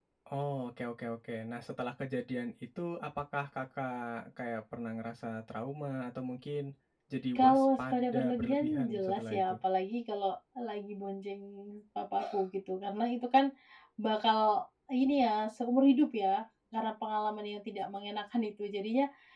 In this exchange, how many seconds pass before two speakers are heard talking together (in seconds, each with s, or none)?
7.3 s